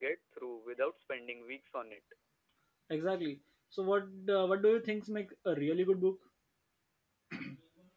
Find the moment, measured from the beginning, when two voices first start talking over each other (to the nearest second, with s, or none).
none